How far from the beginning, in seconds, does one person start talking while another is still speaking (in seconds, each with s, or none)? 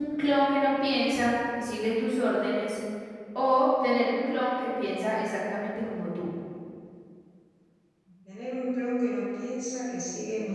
none